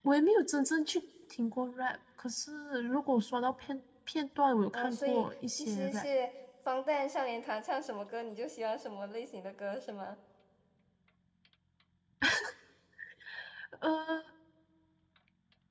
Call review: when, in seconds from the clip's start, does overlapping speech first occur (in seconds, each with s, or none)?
4.7 s